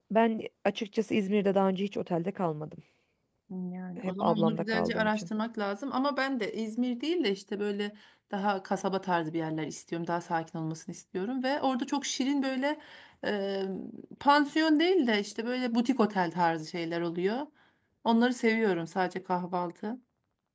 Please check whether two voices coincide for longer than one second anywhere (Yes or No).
Yes